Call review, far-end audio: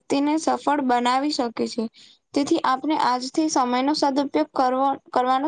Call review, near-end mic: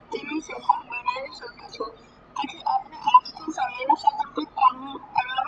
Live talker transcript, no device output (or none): none